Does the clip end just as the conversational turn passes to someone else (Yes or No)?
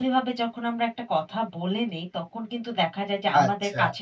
No